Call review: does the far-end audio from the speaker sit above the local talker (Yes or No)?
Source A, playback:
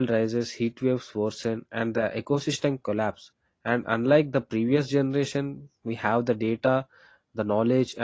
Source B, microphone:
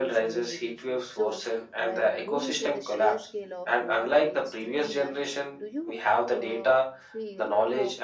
Yes